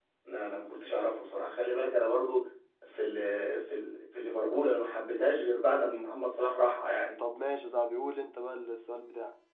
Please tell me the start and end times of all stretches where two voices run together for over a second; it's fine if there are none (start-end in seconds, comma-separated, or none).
none